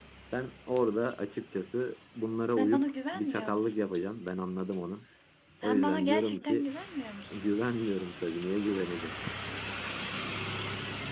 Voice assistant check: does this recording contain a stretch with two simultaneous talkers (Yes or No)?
Yes